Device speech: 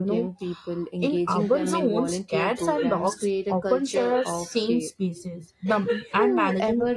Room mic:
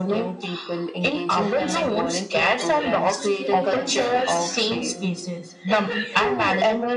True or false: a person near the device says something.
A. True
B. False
A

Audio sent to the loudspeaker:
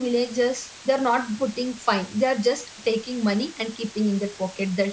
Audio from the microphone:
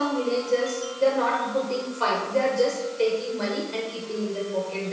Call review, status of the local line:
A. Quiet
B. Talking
A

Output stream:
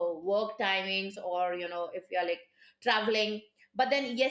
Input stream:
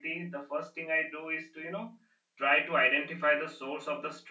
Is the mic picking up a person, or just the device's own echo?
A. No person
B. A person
B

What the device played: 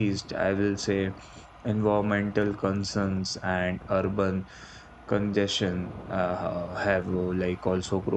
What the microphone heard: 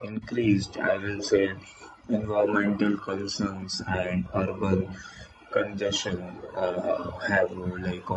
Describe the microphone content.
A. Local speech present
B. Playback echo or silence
B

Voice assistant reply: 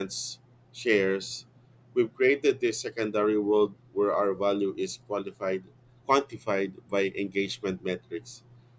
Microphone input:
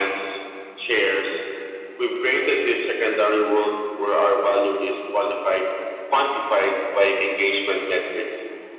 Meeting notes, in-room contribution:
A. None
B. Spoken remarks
A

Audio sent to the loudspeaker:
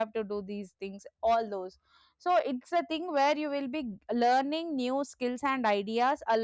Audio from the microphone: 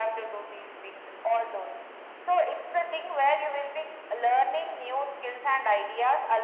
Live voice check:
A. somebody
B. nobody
B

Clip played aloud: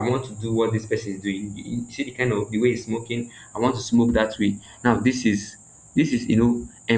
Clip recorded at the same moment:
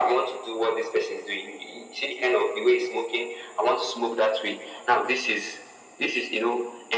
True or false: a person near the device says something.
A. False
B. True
A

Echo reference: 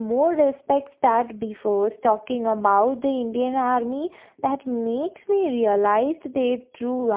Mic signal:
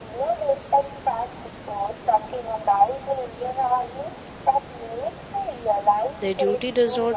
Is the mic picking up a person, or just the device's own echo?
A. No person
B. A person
B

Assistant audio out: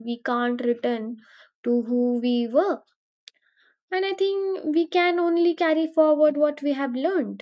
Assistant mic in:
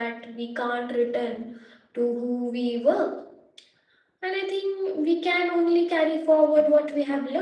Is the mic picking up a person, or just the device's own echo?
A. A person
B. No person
B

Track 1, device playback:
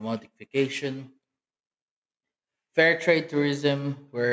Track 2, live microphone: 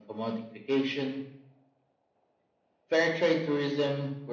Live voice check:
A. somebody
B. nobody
B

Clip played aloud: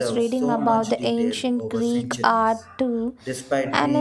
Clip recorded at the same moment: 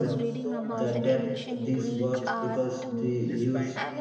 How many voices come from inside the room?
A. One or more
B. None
A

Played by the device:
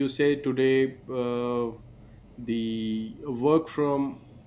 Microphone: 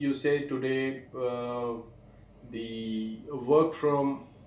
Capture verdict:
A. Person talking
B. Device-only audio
B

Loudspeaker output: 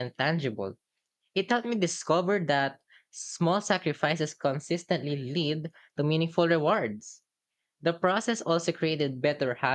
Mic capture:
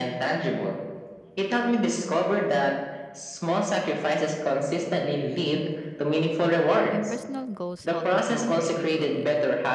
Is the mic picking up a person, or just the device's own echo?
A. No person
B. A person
B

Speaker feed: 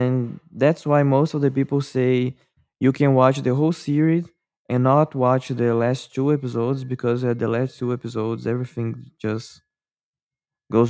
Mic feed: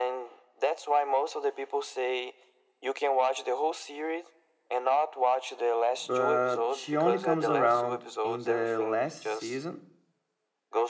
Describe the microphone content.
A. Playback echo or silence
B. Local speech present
B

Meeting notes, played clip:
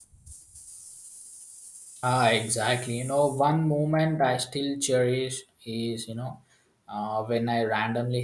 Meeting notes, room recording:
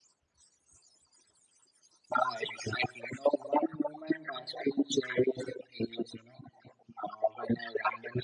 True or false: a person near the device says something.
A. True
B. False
B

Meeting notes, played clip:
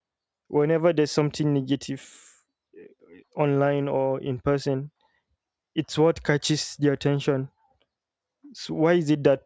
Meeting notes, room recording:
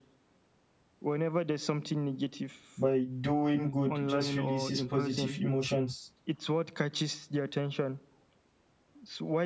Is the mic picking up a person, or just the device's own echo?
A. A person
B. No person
A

